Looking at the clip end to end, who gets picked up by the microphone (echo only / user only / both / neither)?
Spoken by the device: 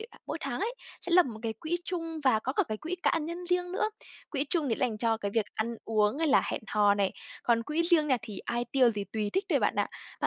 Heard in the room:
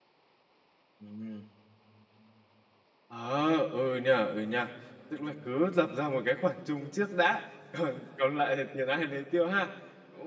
user only